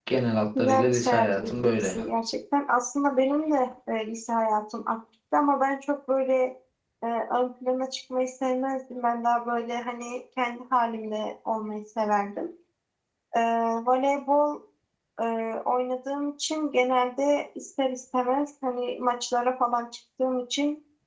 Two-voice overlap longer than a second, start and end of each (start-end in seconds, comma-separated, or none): 0.6-2.0